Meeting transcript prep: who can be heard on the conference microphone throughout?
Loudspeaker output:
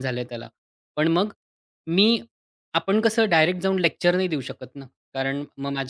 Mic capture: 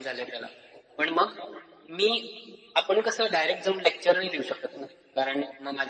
echo only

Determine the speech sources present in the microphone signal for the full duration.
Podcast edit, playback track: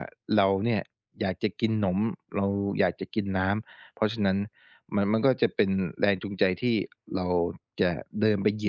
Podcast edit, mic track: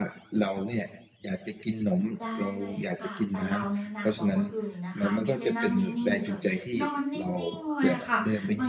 both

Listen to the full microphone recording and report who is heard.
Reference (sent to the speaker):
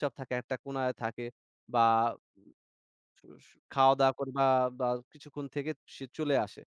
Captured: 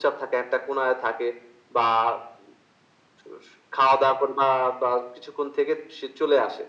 echo only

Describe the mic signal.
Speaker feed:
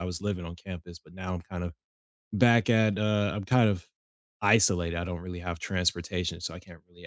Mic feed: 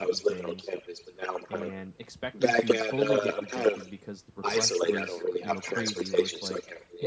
both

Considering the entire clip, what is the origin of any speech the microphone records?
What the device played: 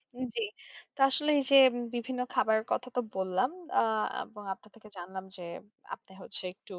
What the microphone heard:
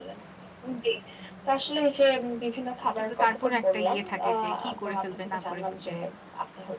both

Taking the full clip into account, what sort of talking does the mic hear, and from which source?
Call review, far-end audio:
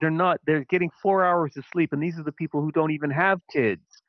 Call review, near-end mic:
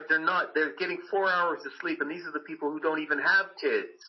echo only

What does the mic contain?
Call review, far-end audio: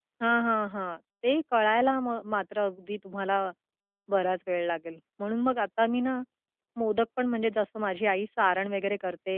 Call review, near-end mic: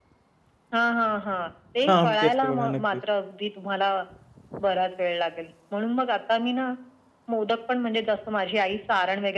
both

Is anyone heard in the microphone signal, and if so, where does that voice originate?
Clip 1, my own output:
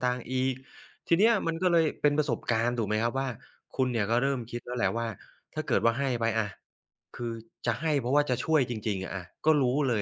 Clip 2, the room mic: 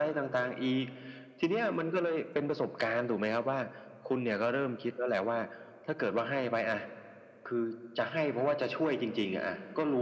echo only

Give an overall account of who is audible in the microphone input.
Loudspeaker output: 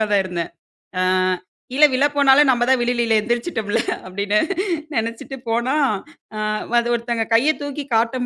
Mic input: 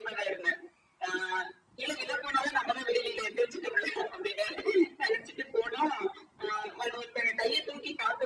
echo only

